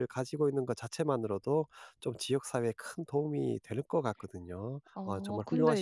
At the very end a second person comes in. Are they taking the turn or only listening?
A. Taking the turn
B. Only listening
A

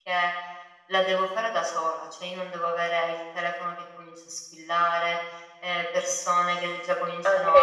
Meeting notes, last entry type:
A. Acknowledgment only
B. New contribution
A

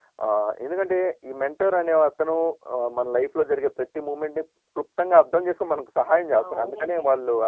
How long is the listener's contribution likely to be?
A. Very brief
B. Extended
B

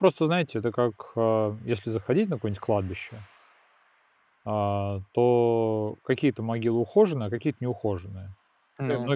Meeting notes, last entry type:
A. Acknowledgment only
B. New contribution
A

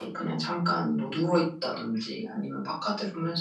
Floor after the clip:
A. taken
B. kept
B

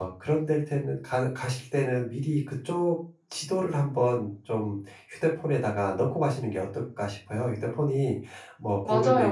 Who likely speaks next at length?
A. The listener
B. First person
A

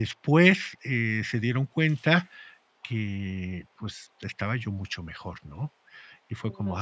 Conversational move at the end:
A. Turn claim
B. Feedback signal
B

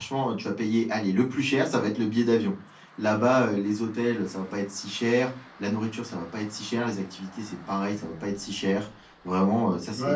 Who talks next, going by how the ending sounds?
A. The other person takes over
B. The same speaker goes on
A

